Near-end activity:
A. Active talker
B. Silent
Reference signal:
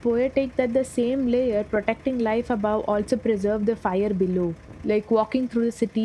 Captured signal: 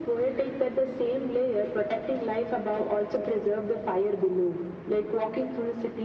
B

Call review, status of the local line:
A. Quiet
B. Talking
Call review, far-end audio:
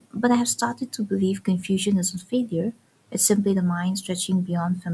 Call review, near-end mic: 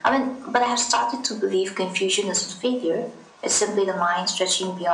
A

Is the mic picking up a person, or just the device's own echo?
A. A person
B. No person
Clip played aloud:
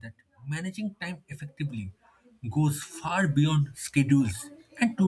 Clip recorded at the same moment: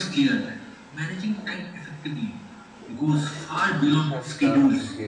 A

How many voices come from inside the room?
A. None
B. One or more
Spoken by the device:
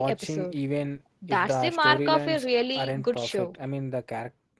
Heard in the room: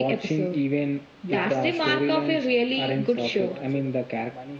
B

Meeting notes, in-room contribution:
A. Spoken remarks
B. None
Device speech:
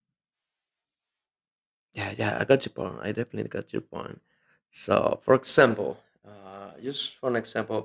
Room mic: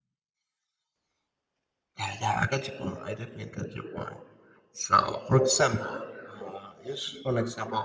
B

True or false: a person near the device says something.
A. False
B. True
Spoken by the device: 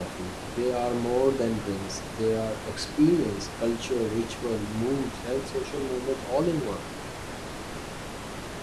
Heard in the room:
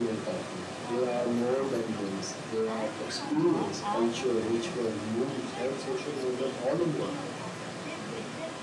B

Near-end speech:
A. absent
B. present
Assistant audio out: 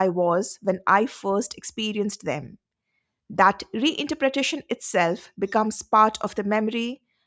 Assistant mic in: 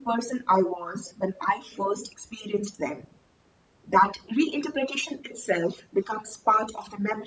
A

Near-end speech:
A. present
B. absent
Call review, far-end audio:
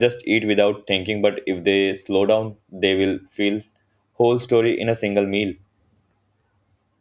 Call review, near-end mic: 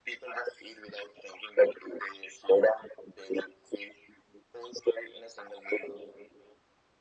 B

